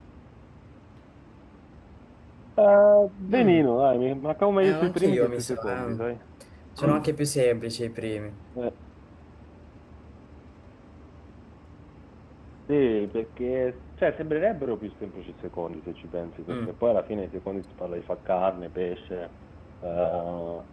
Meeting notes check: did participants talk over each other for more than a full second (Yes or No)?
Yes